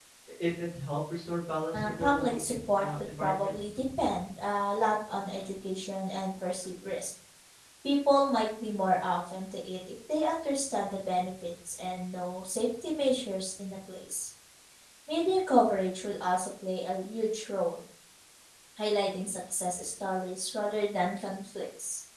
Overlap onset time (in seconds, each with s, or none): 1.7 s